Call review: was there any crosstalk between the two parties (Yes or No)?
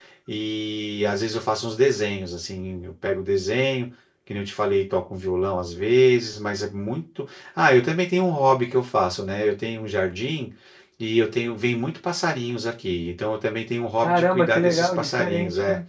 Yes